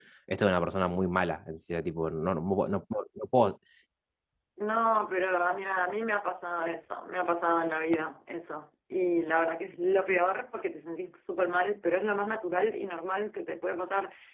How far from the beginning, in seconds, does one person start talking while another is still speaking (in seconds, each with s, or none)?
none